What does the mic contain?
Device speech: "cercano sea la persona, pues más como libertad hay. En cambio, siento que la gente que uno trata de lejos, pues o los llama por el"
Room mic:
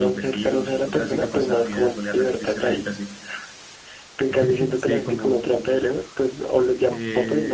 both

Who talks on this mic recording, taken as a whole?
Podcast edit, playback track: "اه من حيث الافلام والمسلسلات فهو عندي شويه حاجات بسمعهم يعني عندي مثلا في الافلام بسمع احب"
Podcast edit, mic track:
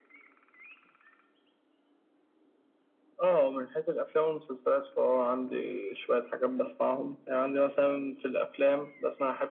echo only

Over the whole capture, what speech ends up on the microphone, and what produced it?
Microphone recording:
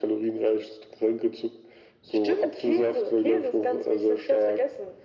echo only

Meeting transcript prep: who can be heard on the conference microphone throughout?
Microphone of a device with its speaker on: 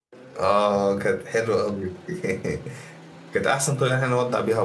user only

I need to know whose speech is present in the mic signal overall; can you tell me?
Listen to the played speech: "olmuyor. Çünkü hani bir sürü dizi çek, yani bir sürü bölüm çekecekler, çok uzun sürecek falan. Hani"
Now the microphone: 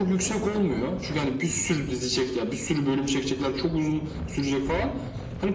echo only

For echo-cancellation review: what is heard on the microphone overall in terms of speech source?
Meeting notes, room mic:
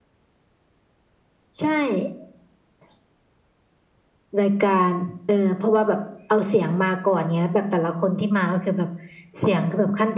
echo only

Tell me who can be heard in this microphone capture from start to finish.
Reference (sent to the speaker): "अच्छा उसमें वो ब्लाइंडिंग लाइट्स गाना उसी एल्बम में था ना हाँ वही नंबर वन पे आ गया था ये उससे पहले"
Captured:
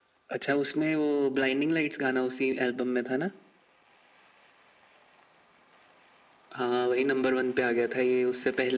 echo only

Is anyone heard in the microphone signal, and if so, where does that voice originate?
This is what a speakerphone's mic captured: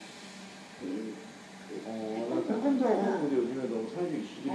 echo only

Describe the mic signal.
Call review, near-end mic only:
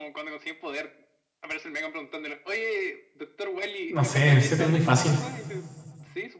both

